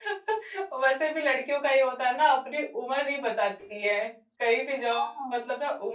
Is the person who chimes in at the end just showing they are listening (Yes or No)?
Yes